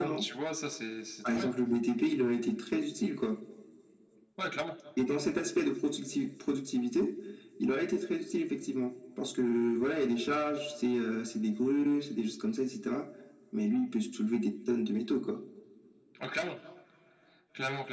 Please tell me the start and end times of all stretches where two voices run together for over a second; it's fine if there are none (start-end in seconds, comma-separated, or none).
none